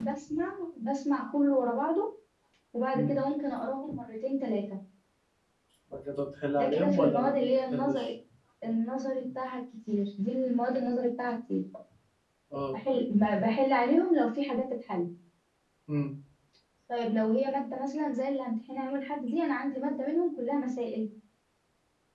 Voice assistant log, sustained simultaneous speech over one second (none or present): present